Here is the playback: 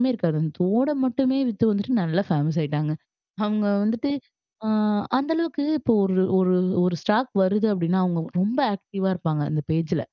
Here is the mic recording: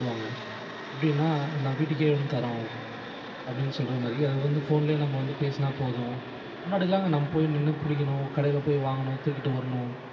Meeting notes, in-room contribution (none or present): present